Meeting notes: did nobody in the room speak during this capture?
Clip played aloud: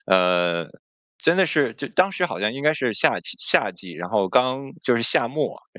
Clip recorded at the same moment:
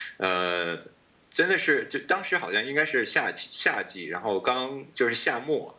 Yes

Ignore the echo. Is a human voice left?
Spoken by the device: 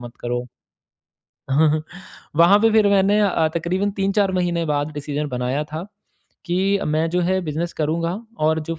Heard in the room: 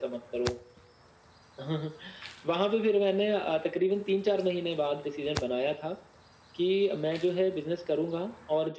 No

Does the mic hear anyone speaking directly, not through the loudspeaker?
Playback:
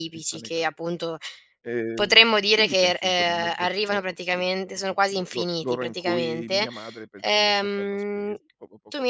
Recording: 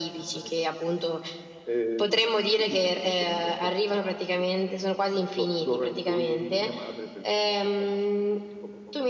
No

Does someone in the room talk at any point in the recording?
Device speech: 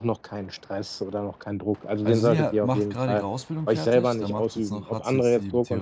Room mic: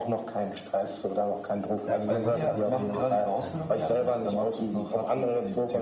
Yes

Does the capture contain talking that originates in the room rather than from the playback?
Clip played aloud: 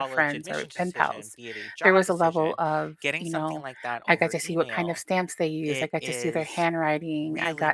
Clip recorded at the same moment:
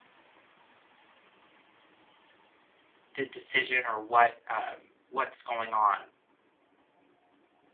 Yes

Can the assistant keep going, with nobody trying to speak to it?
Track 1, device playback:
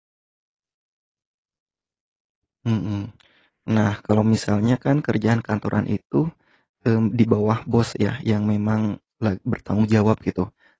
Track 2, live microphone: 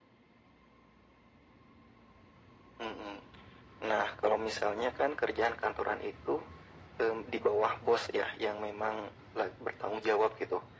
Yes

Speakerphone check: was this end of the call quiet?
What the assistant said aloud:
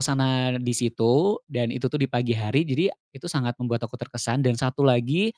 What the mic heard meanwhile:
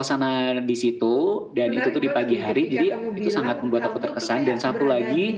No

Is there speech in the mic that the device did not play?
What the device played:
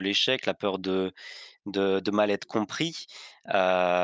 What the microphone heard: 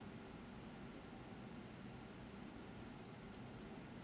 No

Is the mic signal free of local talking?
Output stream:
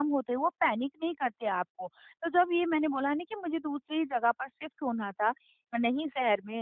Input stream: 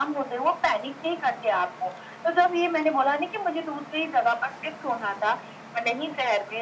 Yes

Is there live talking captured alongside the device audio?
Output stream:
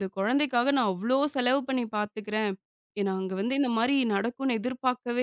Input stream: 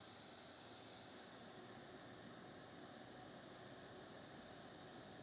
No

